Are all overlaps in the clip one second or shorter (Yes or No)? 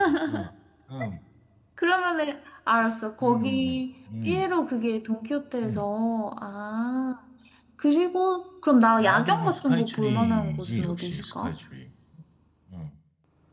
No